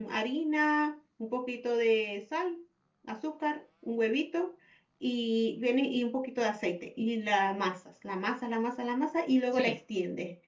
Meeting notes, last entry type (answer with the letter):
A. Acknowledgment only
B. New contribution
A